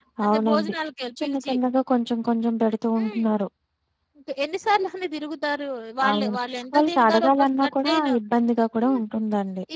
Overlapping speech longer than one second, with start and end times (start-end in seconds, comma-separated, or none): 6.7-8.1